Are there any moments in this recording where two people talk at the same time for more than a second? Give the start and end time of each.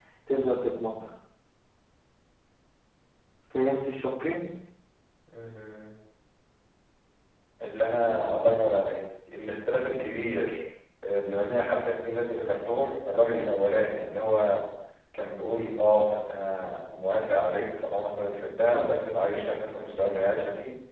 none

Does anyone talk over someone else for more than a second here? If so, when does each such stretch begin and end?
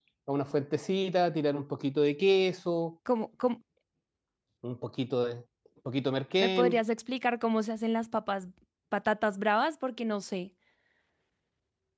none

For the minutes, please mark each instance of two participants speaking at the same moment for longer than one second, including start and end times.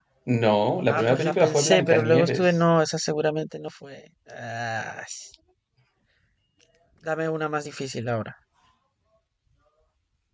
0.9-2.5

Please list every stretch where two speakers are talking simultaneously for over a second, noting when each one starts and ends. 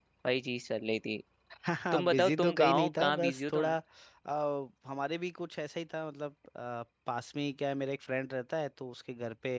1.9-3.7

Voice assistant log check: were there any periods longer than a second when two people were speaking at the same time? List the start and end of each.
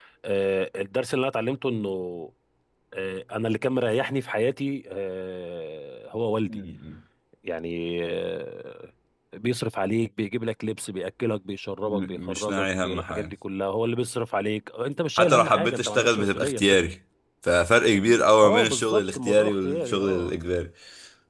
11.8-13.3, 15.2-16.6, 18.4-20.3

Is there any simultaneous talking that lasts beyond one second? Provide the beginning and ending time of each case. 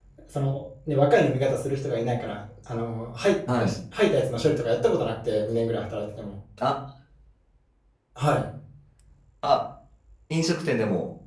none

